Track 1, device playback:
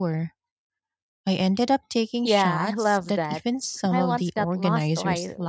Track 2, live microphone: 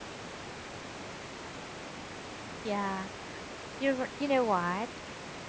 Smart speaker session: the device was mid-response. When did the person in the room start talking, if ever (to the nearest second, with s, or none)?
3 s